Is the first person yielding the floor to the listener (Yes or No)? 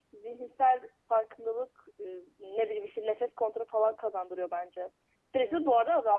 Yes